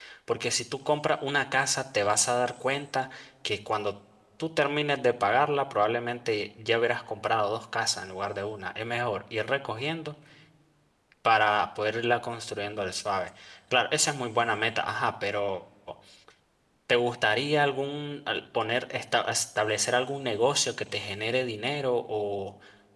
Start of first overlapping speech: none

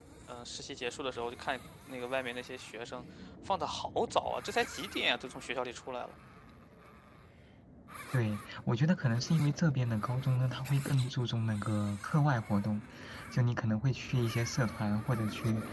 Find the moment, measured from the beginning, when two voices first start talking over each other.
none

